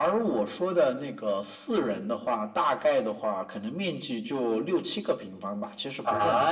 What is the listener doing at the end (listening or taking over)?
taking over